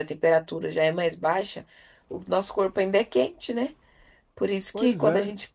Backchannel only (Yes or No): Yes